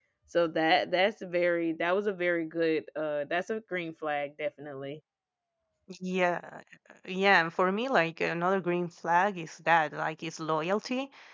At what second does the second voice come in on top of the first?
none

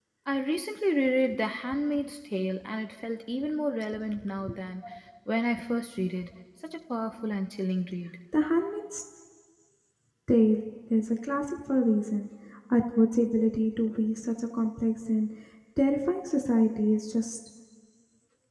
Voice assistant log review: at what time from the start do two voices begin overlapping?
none

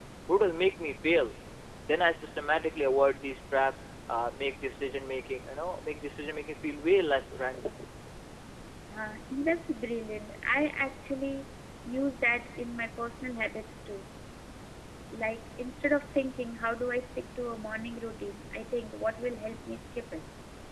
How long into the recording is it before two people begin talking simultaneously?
none

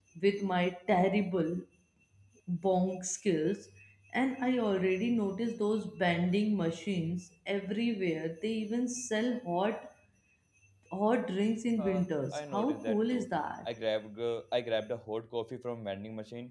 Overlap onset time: 12 s

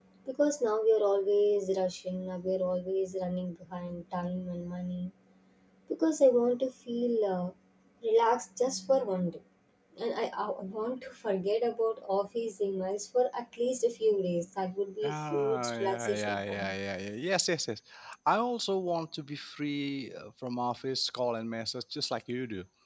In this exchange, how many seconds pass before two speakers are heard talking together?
15 s

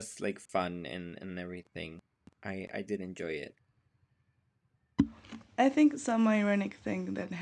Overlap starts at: none

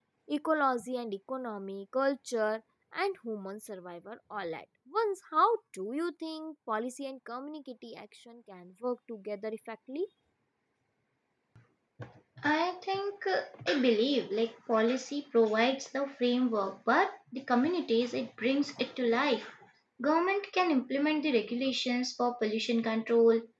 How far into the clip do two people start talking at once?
none

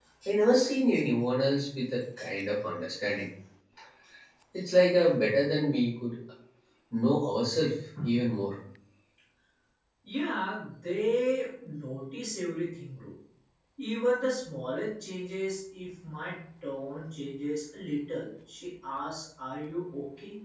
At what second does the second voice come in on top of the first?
none

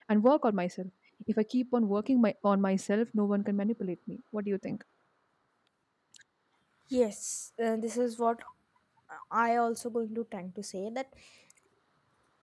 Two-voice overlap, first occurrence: none

